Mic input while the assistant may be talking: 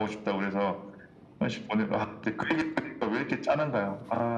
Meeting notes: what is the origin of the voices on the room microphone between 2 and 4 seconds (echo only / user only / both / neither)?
echo only